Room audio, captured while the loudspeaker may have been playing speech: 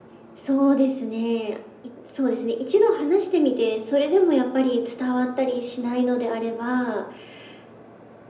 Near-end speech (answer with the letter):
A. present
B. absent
B